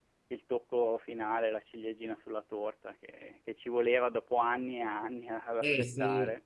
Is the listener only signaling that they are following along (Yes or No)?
No